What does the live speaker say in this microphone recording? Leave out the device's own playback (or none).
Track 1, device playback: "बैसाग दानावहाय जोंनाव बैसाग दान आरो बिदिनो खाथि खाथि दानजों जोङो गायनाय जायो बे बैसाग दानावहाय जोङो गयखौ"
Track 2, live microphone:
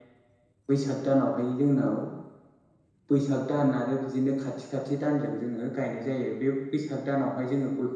none